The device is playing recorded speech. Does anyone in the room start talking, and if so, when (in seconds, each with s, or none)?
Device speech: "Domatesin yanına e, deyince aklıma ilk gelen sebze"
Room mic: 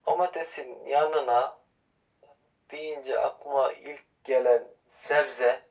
none